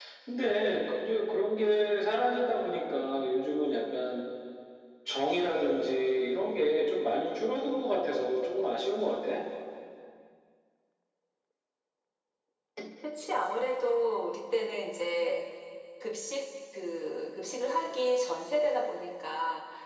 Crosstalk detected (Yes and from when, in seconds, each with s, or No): No